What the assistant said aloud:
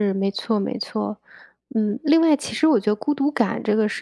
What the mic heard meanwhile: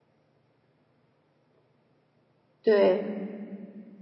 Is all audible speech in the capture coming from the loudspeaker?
No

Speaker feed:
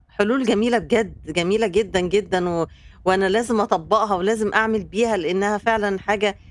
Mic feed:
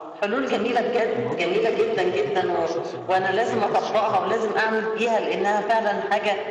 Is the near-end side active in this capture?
Yes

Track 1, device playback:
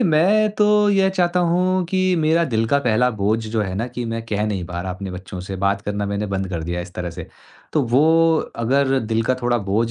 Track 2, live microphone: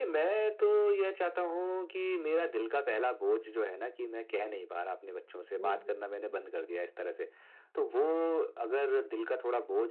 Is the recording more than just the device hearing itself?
Yes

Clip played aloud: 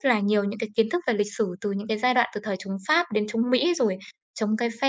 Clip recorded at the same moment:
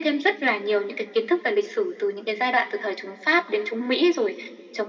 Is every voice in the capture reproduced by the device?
Yes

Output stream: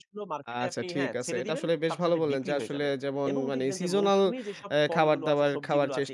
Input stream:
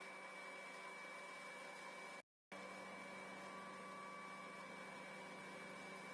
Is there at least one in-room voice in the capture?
No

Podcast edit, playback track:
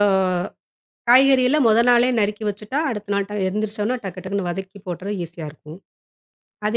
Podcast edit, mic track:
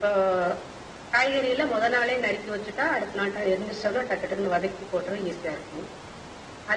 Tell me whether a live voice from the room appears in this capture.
No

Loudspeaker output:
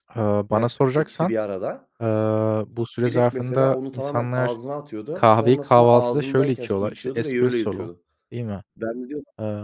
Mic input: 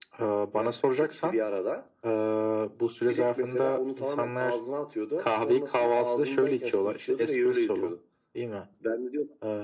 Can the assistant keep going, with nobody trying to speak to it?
Yes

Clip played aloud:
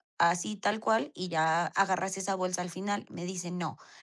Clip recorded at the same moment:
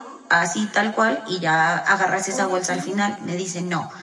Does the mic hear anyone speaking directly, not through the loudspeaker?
Yes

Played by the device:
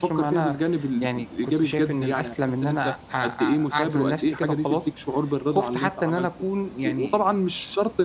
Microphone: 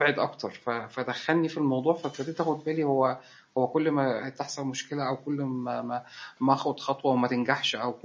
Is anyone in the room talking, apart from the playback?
Yes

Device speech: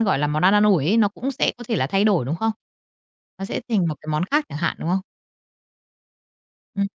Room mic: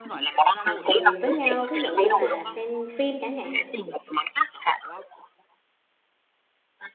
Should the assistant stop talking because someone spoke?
Yes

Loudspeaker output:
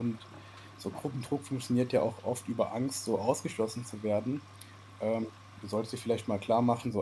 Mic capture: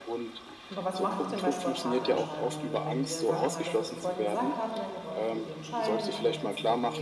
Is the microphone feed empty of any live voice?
No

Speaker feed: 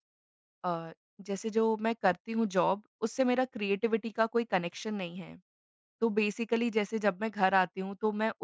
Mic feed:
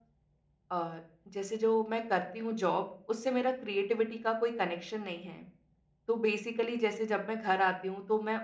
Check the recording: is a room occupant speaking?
No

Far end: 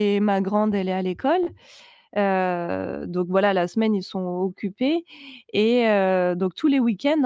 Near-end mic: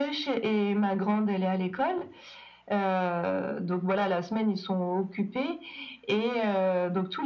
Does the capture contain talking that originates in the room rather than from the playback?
No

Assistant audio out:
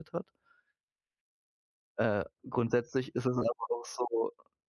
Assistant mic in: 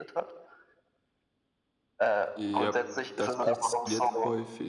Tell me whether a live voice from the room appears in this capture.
Yes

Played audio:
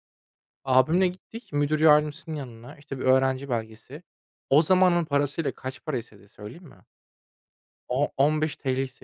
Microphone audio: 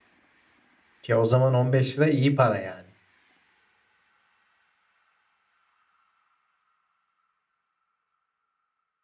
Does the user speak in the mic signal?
Yes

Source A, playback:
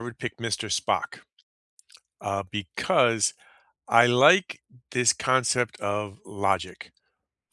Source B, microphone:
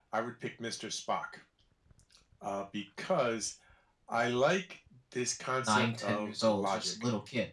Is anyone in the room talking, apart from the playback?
Yes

